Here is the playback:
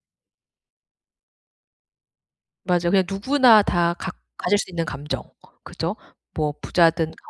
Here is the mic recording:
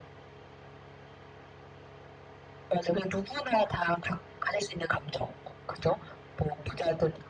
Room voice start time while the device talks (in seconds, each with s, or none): none